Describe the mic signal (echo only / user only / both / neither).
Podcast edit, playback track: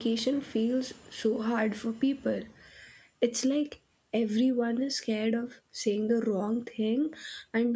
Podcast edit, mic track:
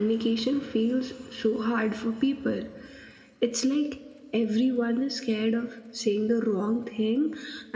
echo only